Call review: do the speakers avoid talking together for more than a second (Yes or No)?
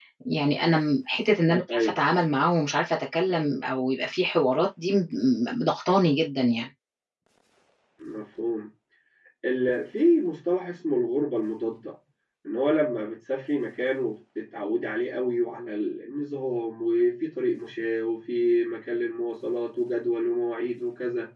Yes